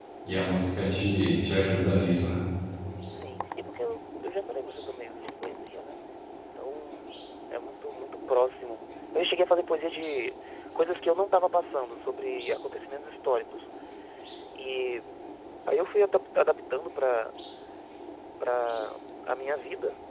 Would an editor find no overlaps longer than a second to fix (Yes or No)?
Yes